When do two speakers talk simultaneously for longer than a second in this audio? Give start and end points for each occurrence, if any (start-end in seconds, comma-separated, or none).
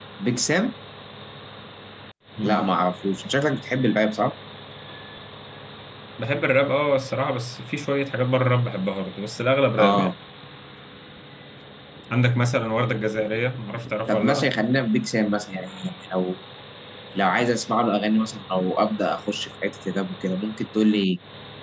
none